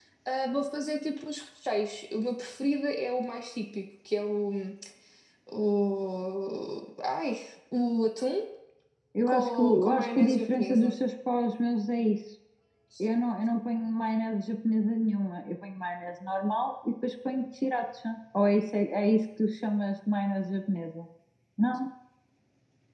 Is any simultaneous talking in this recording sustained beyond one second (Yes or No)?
Yes